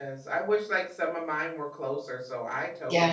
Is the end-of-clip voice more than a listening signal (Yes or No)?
Yes